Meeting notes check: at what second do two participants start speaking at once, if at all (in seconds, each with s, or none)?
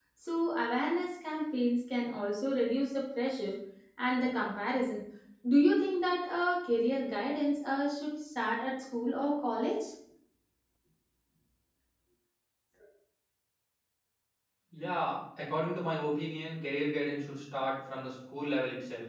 none